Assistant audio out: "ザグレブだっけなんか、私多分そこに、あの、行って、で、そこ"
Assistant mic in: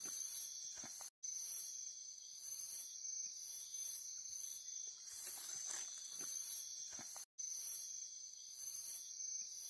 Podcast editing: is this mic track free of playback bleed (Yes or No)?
Yes